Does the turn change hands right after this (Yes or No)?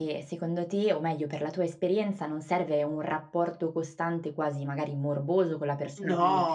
No